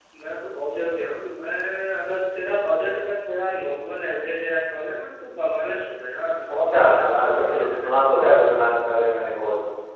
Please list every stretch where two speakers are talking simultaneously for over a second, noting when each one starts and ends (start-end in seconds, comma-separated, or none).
6.7-7.9